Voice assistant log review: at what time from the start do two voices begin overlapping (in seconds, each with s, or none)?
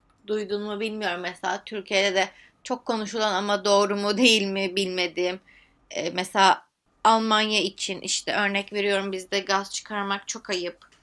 none